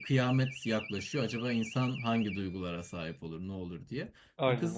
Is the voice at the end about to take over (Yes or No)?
No